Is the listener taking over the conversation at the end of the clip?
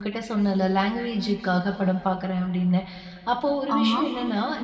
No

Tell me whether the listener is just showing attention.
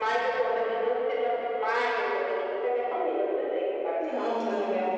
Yes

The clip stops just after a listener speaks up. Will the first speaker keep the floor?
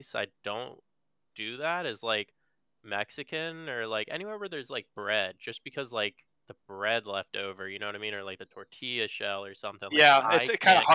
No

